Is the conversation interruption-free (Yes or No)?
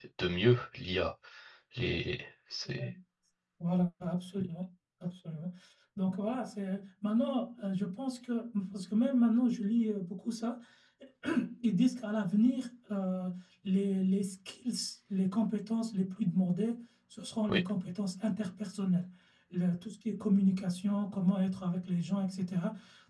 Yes